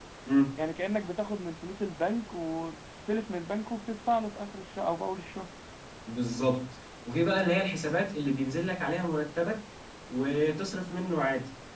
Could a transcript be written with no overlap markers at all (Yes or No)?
Yes